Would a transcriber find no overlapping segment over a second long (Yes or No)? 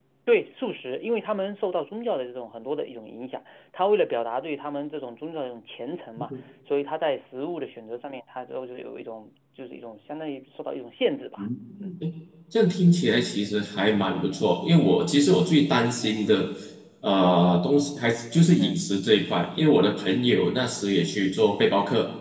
Yes